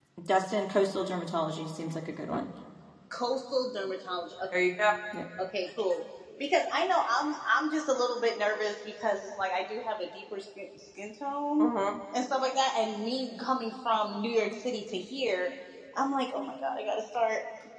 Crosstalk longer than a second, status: none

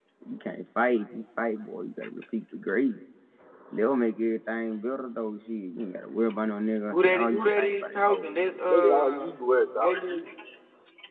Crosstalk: present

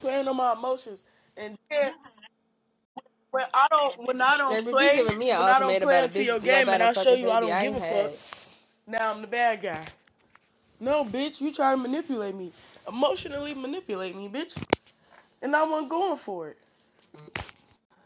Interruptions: present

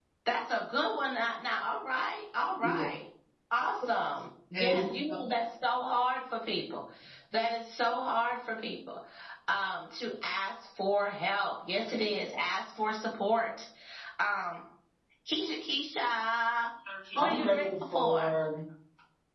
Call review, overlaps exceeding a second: present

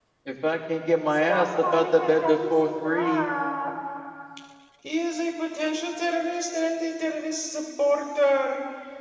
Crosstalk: present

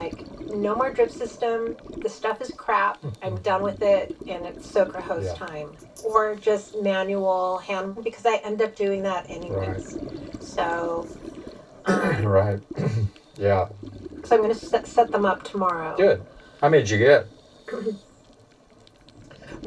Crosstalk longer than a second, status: none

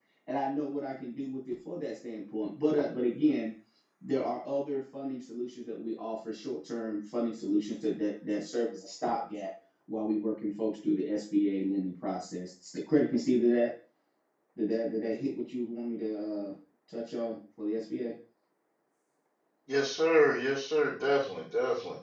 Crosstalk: none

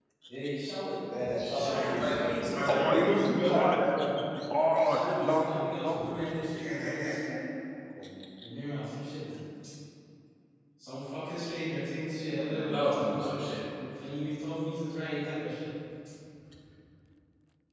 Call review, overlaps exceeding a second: present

